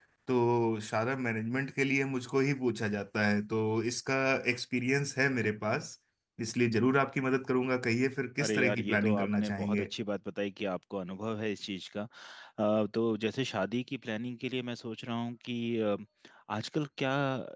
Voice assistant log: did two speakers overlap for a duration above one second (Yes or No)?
Yes